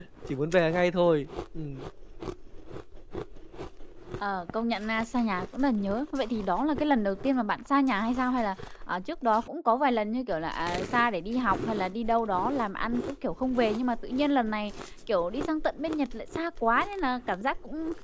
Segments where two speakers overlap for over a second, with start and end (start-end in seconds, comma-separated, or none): none